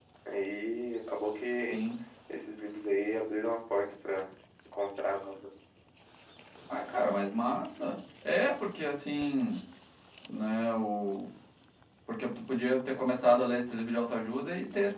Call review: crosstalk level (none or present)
none